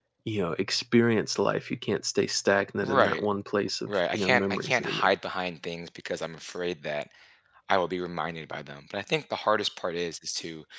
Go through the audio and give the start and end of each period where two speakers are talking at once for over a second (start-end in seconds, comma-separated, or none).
3.9-5.1